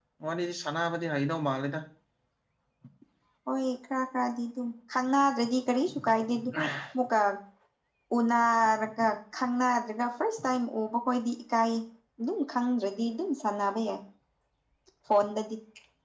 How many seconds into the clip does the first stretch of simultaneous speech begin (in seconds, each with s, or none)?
none